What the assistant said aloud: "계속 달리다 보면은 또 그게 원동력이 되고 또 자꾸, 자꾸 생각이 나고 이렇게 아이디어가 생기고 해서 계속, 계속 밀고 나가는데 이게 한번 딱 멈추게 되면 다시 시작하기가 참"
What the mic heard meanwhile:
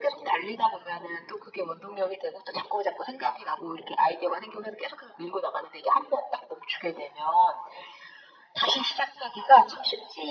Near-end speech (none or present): none